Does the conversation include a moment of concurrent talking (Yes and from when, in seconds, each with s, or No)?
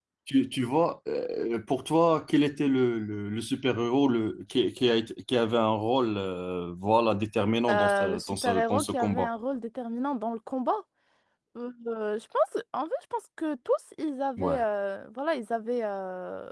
Yes, from 7.7 s